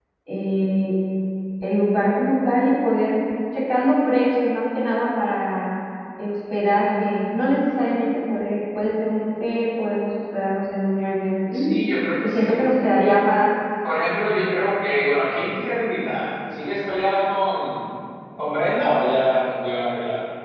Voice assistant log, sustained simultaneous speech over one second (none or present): none